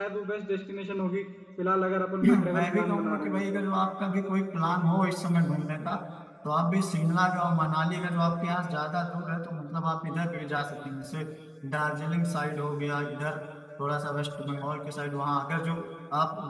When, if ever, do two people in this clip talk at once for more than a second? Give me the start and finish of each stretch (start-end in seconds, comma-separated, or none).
2.2-3.4